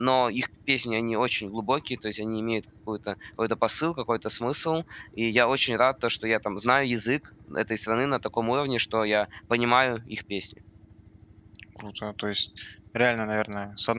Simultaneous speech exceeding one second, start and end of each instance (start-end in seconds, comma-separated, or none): none